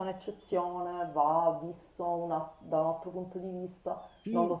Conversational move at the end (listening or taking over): taking over